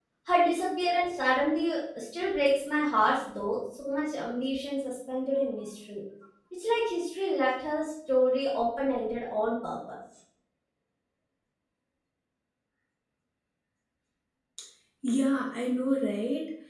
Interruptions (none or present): none